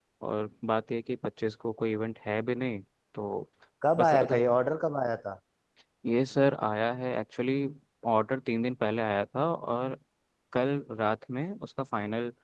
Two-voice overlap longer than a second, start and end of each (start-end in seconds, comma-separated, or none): none